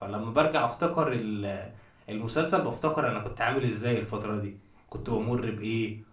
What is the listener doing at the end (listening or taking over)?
listening